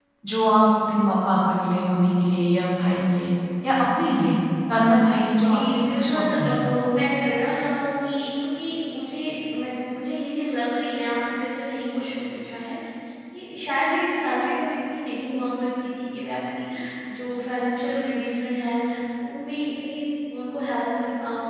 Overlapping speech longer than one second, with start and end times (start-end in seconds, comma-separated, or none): 5.3-6.5